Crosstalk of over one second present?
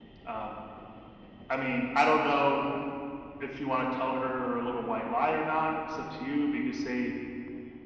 No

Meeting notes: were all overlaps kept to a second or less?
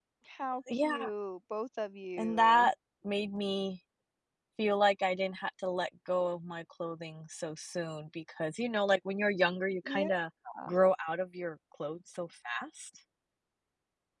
Yes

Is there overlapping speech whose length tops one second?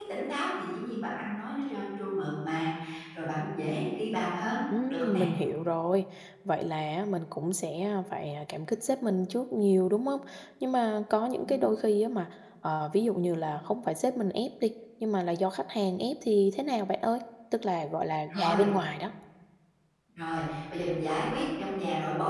No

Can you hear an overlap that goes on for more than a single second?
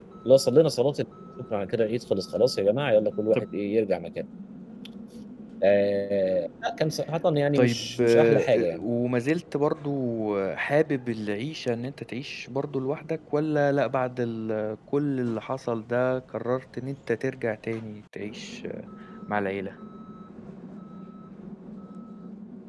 Yes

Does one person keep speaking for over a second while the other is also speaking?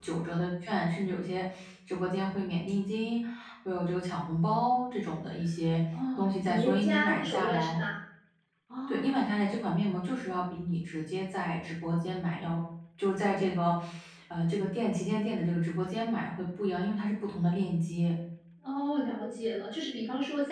Yes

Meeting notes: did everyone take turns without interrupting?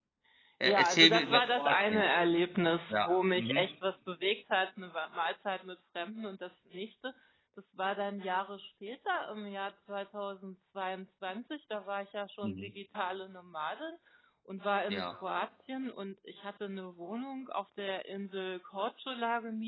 No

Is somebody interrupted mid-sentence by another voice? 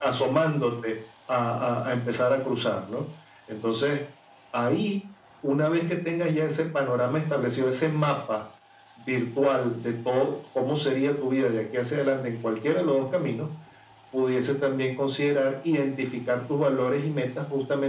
No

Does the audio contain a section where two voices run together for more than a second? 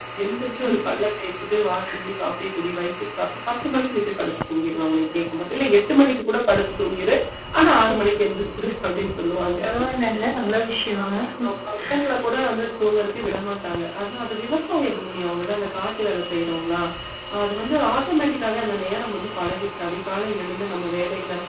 No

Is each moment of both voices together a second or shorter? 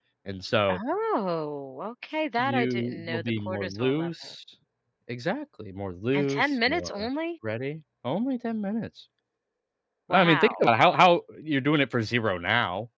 No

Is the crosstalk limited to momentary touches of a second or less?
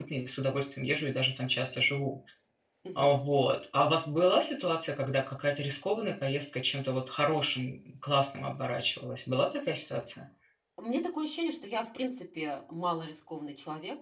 Yes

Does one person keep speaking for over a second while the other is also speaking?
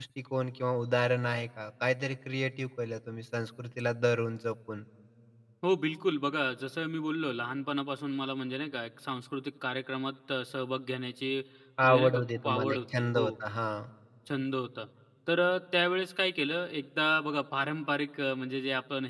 Yes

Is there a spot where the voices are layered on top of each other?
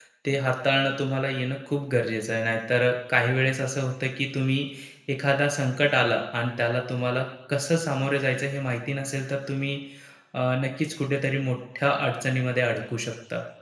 No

